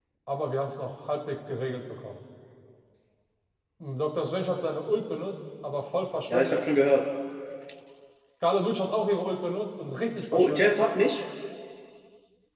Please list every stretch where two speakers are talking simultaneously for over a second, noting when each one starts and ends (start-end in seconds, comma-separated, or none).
none